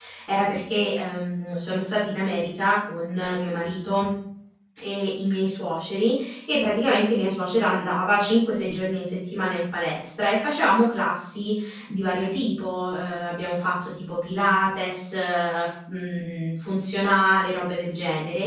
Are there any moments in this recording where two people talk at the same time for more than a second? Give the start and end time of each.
none

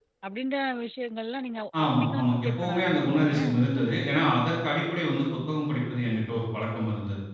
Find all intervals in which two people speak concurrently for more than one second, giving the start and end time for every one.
1.8-3.5

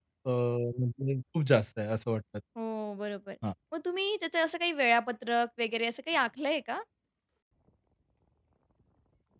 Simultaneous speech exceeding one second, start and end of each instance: none

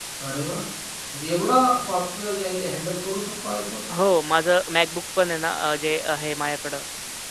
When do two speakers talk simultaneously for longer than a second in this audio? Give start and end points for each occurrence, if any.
none

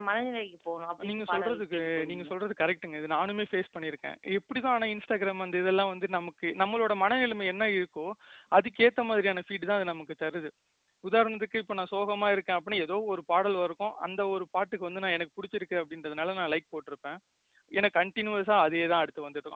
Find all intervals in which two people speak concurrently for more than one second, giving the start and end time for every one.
1.1-2.3

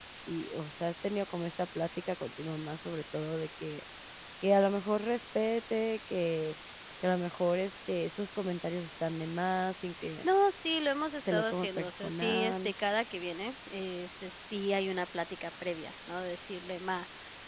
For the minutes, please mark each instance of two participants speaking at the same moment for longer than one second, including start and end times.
11.2-12.7

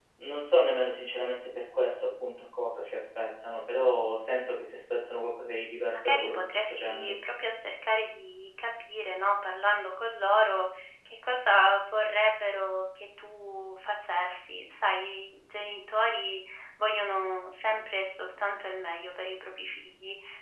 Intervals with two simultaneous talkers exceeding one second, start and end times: 5.9-7.1

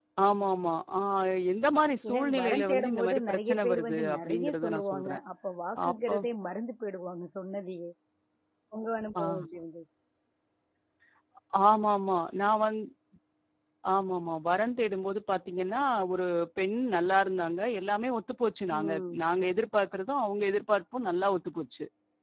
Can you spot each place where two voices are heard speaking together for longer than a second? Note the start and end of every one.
2.1-5.2

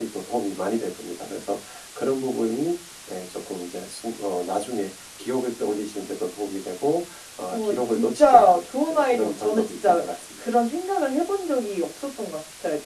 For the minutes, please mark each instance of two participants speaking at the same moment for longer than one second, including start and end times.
7.5-10.4

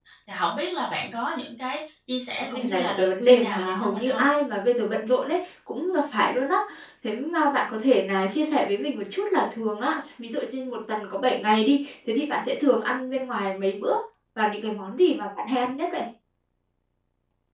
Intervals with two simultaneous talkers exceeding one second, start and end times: 2.4-4.2

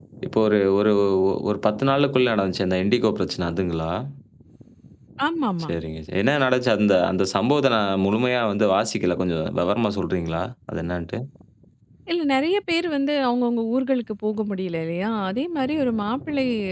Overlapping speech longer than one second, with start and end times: none

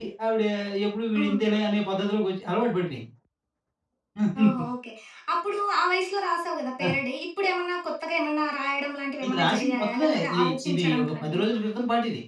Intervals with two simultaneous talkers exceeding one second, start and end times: 9.2-11.4

